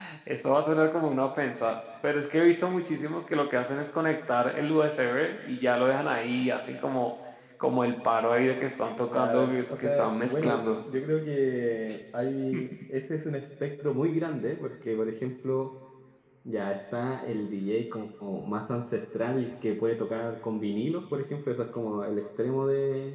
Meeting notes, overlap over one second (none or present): present